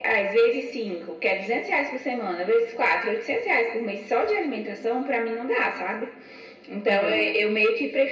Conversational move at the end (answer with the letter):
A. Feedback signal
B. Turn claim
A